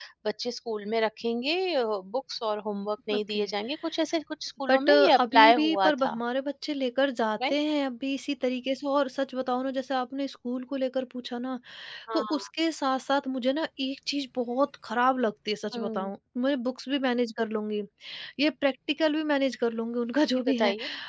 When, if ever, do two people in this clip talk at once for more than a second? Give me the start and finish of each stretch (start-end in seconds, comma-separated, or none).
4.7-6.2